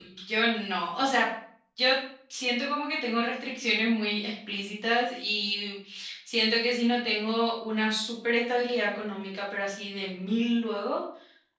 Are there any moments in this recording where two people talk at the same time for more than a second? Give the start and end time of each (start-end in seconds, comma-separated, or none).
none